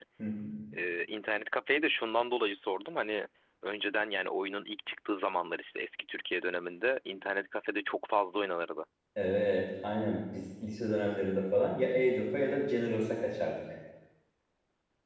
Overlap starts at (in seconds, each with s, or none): none